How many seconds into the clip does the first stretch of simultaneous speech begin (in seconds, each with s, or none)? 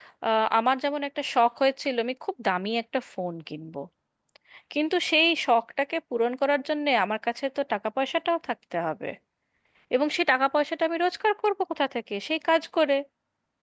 none